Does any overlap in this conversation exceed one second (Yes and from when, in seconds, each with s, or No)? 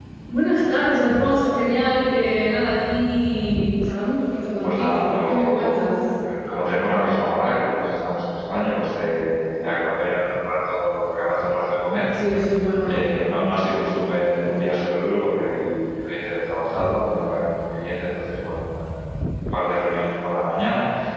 Yes, from 4.6 s